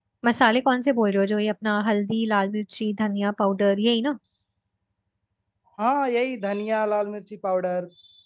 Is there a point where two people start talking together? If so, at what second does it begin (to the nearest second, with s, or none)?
none